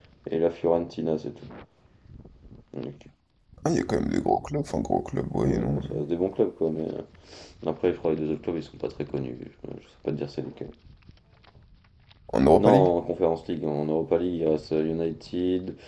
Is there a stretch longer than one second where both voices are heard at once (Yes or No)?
No